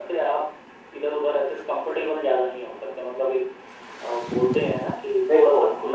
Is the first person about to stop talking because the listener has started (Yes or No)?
Yes